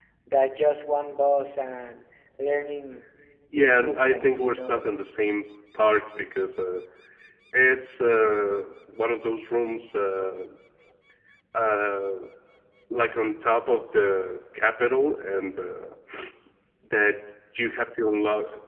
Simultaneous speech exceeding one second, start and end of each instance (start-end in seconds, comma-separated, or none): 3.5-4.8